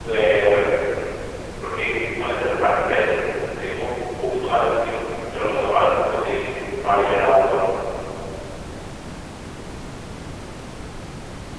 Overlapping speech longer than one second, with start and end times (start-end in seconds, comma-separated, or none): none